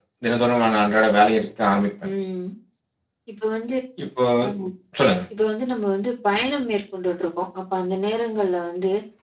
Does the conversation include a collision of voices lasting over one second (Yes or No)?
No